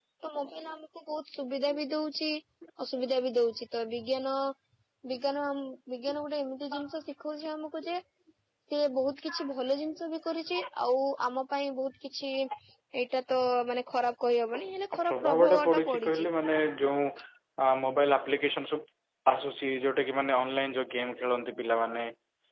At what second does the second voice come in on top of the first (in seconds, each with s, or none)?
15.0 s